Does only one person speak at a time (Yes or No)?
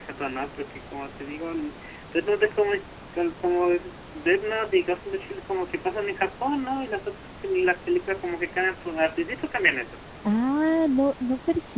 Yes